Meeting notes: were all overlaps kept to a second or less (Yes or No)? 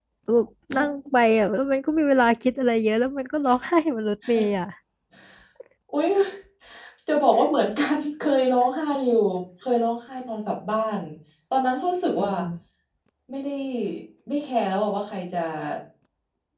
Yes